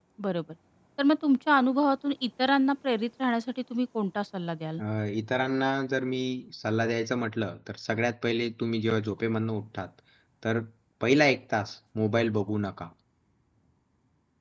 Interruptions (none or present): none